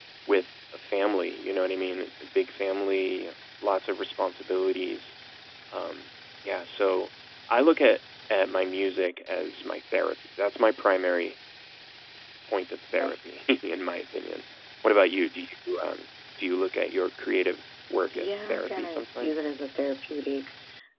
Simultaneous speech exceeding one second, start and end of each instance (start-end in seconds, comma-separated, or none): 18.1-19.5